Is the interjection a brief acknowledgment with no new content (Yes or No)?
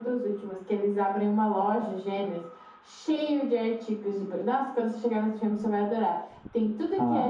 Yes